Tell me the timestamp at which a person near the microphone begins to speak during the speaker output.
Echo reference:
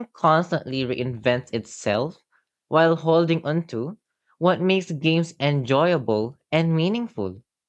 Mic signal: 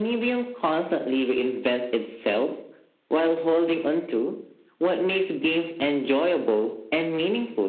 none

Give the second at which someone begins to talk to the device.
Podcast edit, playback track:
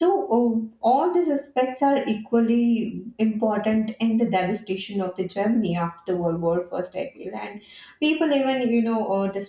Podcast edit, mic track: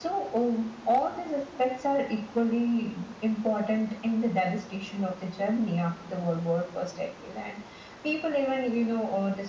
none

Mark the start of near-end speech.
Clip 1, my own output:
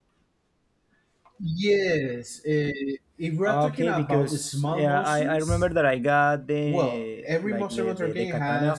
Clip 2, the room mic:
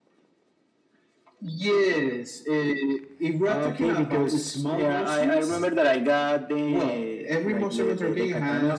none

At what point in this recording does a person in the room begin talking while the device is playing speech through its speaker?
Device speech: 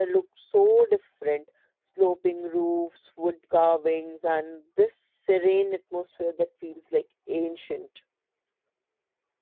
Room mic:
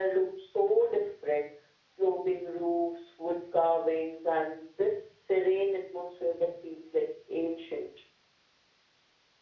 none

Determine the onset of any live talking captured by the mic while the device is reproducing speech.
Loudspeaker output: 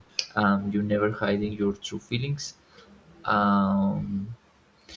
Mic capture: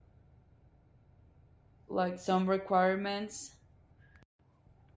1.9 s

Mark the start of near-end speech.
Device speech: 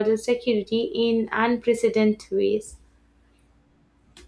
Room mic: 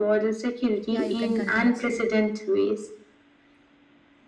0.9 s

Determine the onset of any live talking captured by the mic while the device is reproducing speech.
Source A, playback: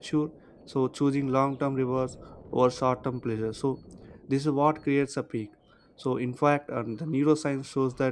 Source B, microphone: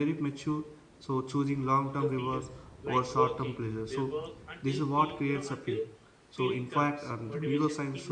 2.0 s

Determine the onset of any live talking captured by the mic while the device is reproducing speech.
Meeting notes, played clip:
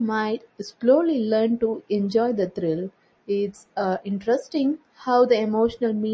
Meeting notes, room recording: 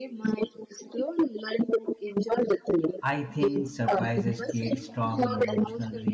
2.8 s

